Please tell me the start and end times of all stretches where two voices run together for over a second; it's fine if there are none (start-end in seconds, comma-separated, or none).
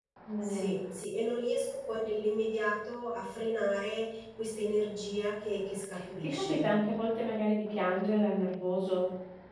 none